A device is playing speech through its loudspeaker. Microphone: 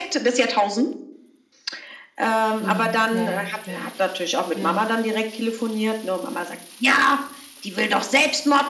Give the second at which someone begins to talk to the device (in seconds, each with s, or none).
2.6 s